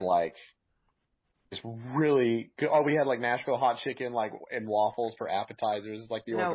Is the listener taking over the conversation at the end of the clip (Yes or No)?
No